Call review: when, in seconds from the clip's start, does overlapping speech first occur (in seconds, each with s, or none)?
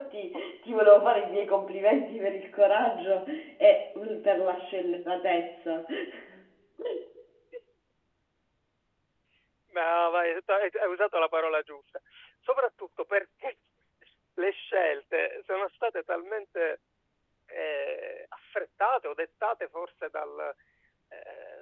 none